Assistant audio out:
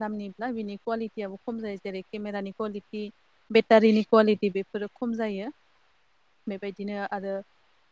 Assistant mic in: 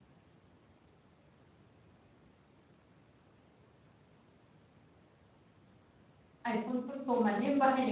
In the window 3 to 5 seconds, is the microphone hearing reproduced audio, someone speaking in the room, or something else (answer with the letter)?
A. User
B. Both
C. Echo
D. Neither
D